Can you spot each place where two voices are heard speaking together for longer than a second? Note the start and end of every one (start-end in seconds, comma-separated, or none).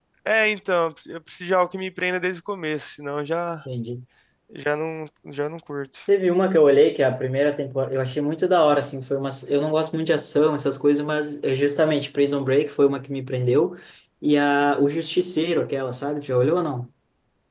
none